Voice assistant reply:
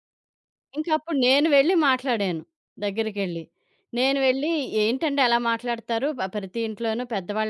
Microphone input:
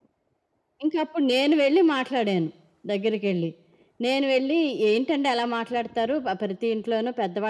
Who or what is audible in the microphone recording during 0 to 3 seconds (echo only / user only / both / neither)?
echo only